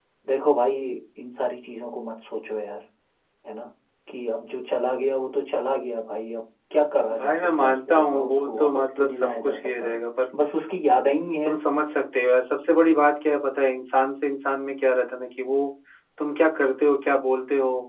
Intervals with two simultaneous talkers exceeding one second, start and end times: 7.2-10.0

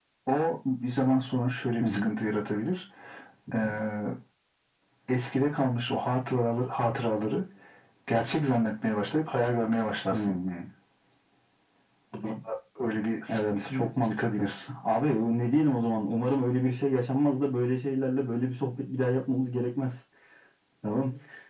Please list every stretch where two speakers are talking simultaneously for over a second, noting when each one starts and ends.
13.3-14.6

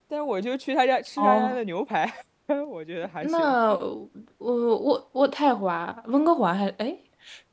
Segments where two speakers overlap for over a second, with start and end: none

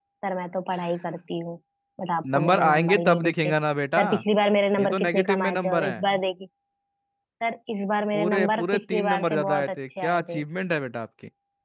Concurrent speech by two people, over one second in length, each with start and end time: 2.3-3.5, 4.8-6.0, 8.1-10.4

